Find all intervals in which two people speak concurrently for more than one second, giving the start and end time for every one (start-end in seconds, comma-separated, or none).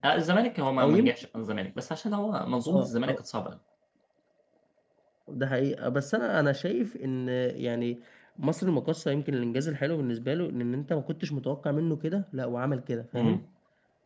none